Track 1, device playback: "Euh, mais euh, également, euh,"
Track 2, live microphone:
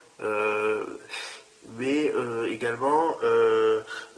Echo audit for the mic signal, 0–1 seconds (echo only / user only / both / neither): echo only